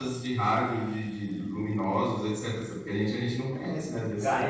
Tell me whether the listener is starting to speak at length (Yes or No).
Yes